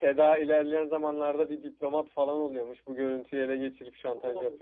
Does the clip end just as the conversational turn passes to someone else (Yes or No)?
Yes